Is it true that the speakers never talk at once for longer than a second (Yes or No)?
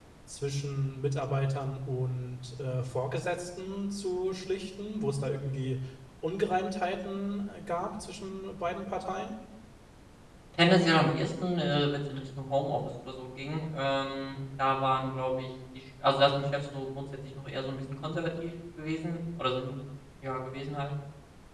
Yes